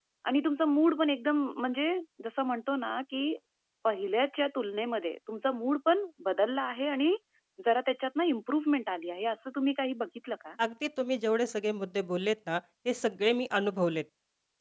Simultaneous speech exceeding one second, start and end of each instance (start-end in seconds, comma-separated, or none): none